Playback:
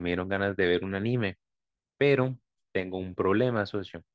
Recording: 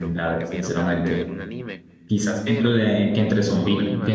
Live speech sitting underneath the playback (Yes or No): No